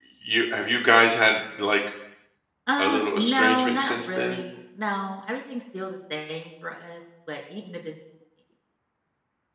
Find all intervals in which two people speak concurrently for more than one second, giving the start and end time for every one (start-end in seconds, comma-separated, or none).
2.8-4.4